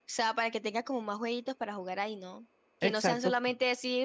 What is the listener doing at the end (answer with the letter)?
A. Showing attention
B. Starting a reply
A